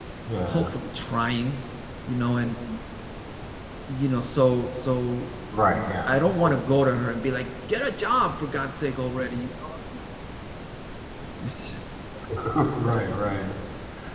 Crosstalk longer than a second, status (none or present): none